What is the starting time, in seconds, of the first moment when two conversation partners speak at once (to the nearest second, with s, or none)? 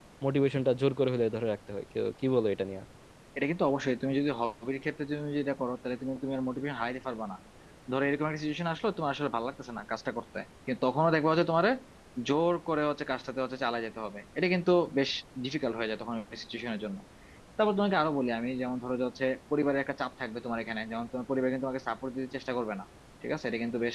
none